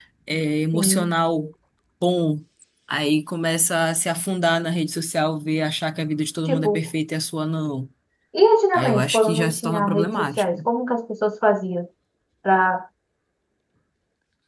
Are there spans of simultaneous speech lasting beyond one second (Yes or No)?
Yes